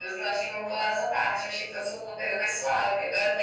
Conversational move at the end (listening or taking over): listening